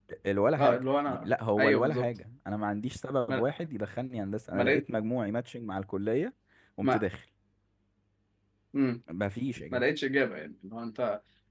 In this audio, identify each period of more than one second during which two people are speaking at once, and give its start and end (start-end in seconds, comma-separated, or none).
0.6-2.1